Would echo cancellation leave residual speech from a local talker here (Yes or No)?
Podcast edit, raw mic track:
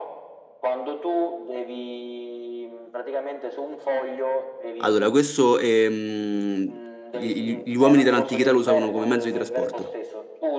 Yes